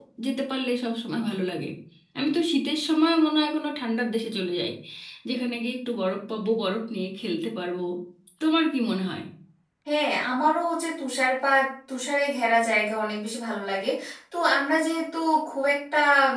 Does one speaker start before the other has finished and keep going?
No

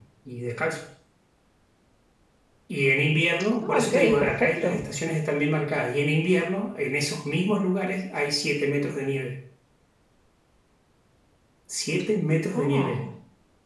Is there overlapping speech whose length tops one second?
Yes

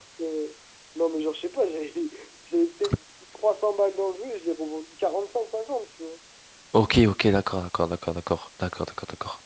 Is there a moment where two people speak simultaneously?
No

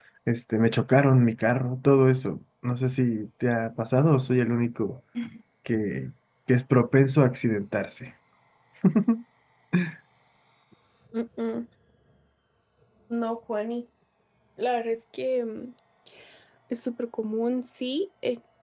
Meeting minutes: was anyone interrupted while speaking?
No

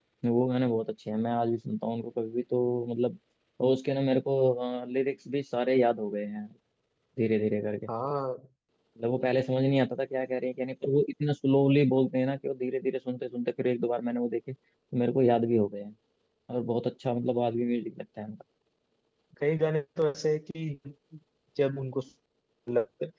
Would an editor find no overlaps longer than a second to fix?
Yes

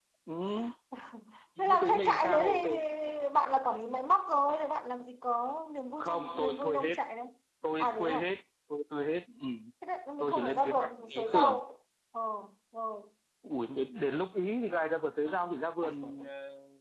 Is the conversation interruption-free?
No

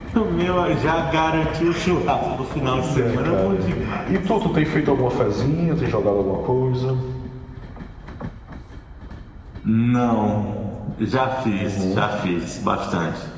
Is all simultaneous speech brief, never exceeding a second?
No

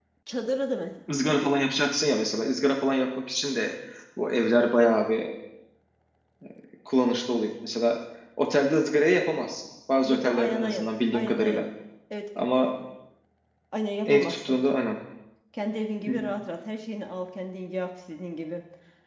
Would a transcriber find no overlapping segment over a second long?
No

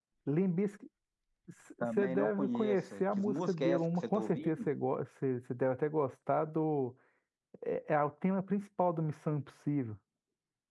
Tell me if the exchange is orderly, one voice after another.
No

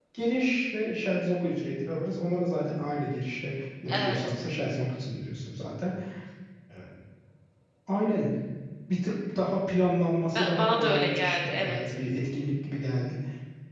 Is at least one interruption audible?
Yes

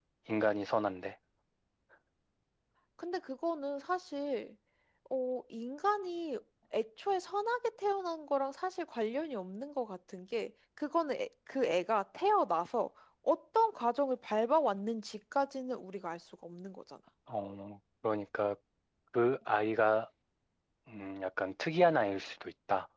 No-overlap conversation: Yes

